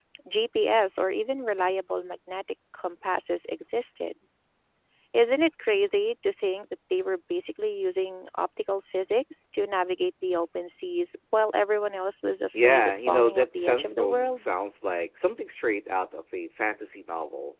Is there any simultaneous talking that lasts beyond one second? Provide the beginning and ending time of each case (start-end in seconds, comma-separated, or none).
12.5-14.4